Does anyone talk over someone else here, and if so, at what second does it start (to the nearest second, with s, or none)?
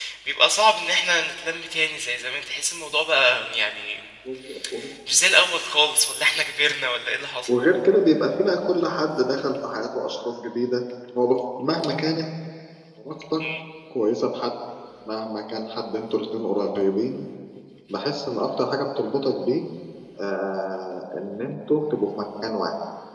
none